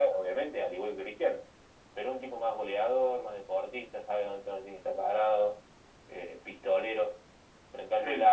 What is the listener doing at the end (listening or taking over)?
listening